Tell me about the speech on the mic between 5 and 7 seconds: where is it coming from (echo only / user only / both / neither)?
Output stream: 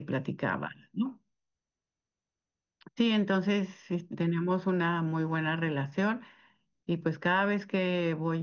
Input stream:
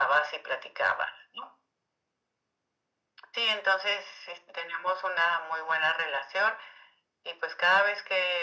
echo only